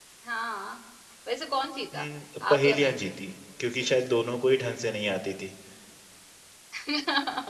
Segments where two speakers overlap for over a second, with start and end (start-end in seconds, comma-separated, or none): none